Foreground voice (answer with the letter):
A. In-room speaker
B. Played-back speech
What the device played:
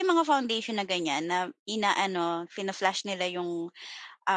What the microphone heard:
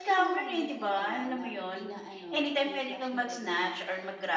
A